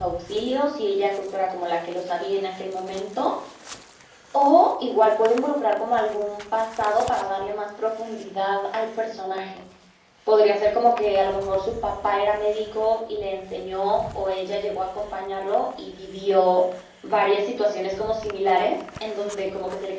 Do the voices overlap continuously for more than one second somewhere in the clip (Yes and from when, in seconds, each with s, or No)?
No